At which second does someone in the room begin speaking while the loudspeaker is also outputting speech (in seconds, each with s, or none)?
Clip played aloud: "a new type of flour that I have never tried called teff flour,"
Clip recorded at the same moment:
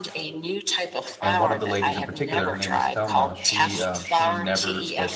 1.2 s